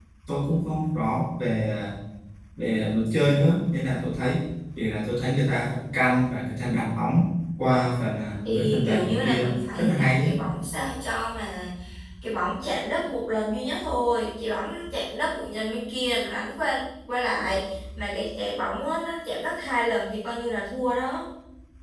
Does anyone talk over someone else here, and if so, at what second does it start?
8.4 s

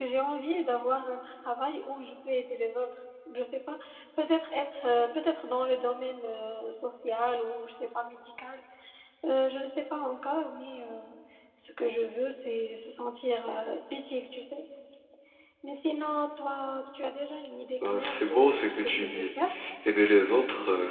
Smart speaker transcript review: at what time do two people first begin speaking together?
17.8 s

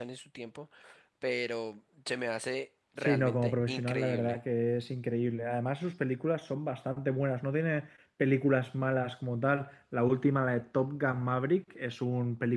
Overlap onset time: 3.0 s

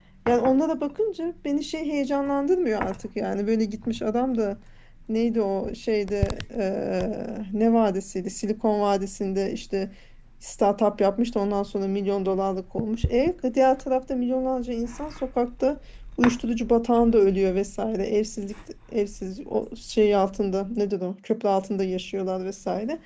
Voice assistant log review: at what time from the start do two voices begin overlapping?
none

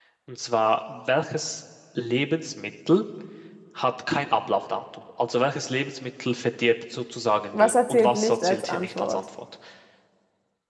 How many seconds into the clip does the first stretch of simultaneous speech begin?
7.5 s

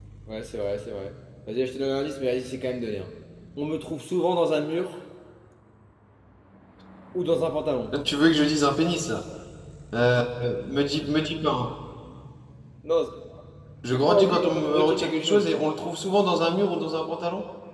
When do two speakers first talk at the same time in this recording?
13.9 s

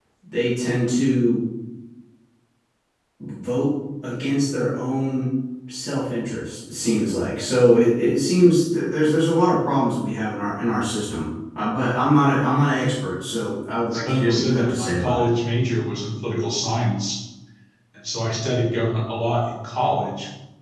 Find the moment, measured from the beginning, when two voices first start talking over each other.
13.9 s

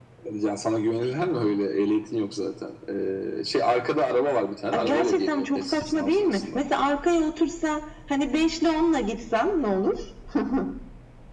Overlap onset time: 4.7 s

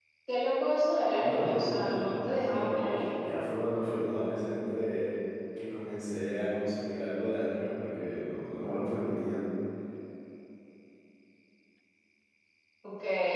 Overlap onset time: 1.2 s

